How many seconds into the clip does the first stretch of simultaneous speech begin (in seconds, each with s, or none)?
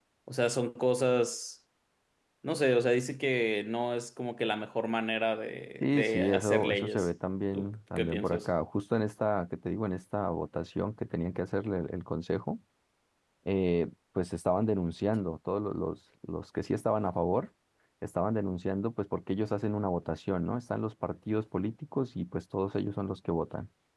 5.8 s